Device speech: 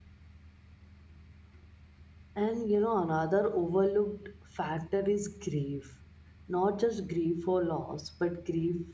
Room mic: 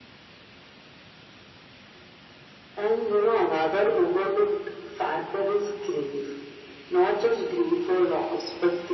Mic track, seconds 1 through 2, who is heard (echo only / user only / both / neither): neither